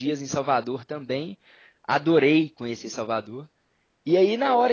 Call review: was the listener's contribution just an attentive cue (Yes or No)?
Yes